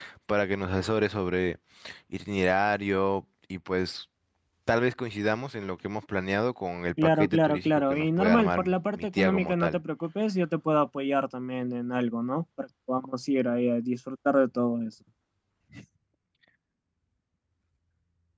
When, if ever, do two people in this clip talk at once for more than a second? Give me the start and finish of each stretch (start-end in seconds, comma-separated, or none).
7.0-9.8